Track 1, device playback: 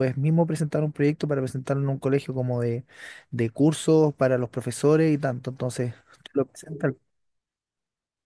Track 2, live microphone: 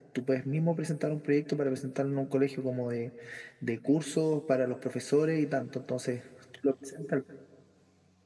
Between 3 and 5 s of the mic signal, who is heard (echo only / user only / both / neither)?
echo only